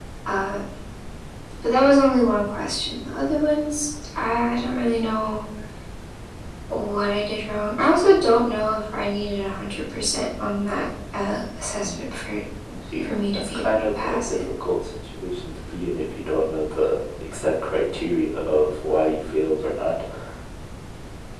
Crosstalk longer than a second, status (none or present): present